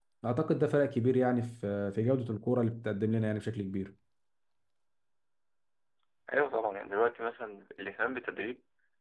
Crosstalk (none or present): none